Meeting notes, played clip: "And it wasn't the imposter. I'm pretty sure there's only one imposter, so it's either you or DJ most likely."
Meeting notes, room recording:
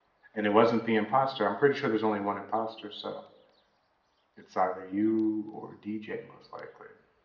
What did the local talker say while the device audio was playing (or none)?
none